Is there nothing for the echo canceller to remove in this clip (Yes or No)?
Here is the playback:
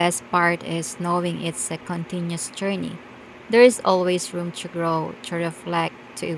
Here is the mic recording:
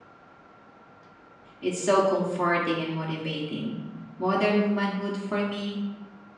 Yes